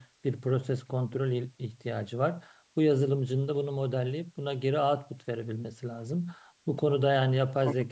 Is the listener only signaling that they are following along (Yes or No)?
Yes